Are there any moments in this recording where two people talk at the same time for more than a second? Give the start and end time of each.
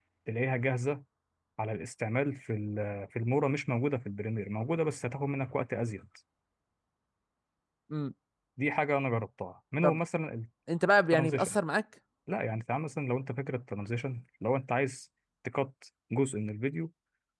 none

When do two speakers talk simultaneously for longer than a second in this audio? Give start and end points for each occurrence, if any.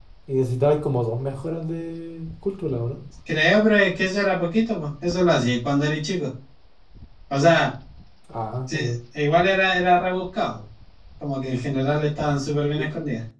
none

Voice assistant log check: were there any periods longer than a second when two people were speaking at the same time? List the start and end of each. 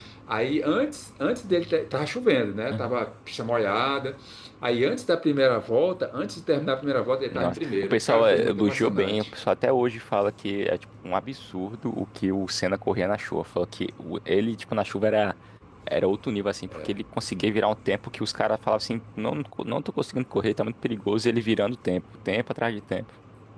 7.3-9.2

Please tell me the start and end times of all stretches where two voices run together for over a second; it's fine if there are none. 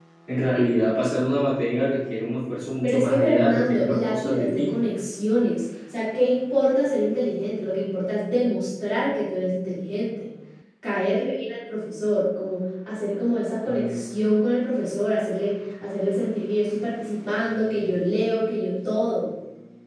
2.8-4.7

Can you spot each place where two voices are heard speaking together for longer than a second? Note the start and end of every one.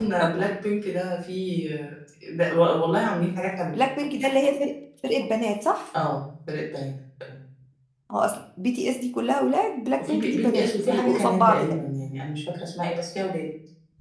10.0-11.8

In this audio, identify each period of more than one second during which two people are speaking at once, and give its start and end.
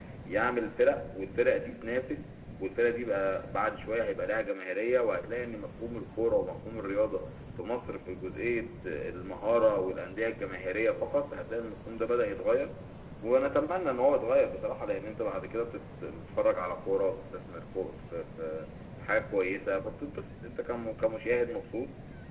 none

